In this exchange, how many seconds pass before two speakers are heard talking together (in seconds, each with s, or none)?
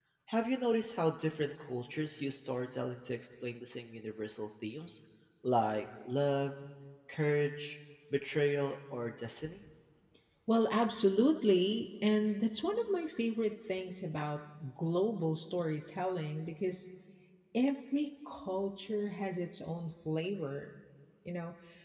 none